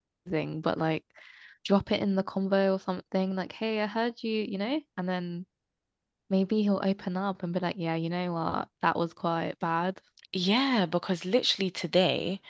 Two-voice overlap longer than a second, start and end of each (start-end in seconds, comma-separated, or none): none